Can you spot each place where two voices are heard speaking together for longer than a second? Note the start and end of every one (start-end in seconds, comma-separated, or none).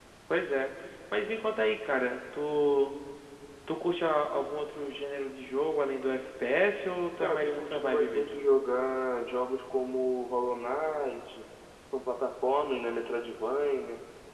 7.2-8.4